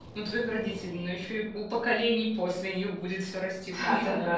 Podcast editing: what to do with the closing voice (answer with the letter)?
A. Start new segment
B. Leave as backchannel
A